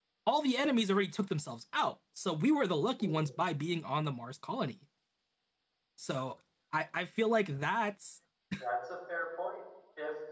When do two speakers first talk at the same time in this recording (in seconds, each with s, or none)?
none